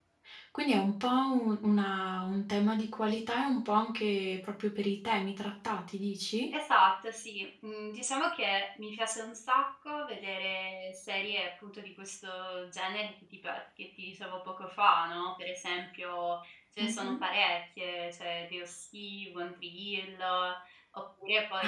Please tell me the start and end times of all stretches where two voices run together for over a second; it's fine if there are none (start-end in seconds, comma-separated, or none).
none